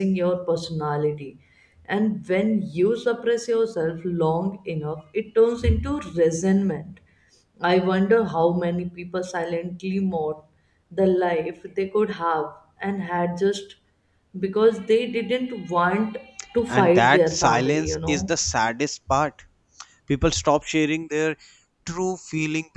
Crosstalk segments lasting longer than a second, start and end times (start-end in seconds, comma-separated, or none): 16.7-18.3